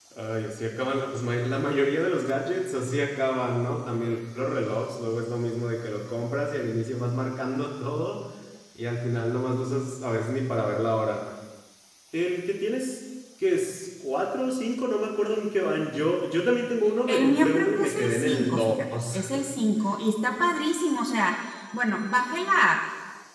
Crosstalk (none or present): present